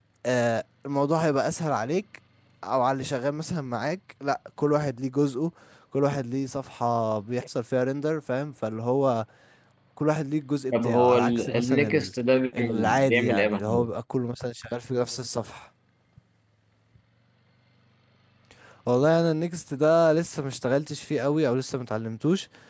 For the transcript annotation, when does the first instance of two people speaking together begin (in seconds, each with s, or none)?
10.7 s